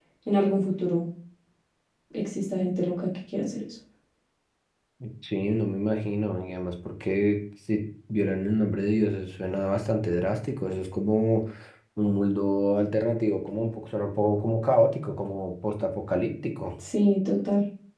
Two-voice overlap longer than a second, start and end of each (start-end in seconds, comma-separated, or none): none